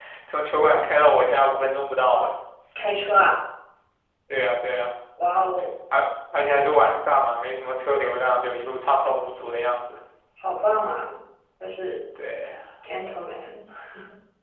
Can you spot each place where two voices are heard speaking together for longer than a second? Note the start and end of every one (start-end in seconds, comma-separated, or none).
none